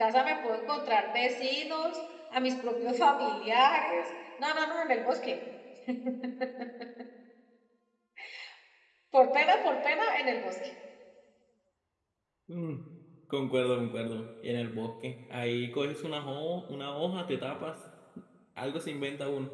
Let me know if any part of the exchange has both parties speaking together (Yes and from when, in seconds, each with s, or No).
No